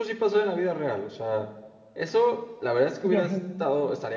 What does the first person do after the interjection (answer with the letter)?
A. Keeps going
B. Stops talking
A